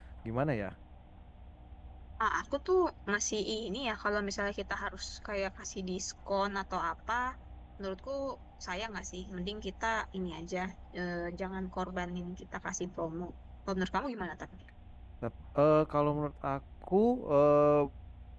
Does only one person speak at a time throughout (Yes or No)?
Yes